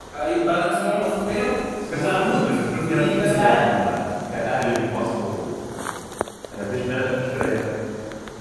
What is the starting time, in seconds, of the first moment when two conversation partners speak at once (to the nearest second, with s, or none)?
2 s